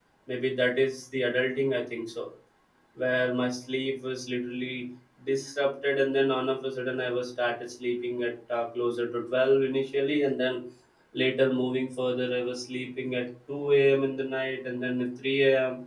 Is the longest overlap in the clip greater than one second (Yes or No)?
No